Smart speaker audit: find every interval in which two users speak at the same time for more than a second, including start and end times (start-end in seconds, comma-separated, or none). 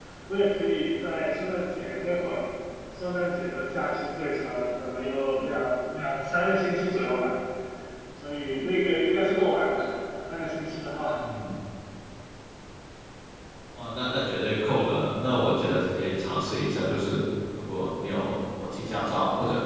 none